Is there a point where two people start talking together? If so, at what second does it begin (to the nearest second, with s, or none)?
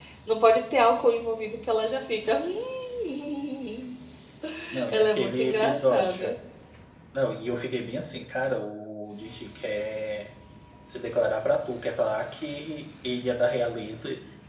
5 s